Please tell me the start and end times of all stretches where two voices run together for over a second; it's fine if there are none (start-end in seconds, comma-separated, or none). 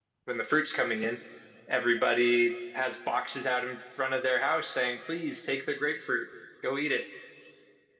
none